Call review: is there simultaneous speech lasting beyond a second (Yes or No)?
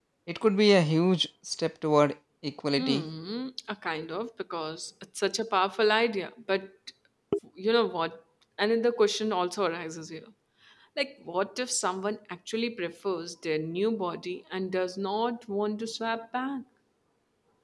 No